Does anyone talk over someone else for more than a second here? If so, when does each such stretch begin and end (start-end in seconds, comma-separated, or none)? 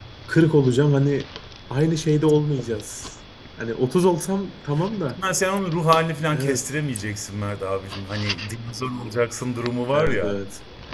none